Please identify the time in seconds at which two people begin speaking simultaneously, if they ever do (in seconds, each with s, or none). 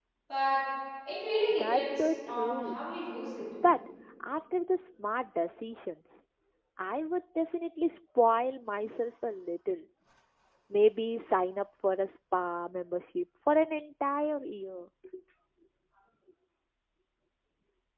1.5 s